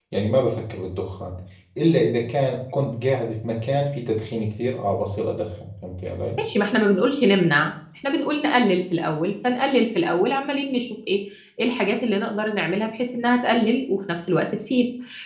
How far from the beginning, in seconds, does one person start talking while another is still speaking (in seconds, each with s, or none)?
none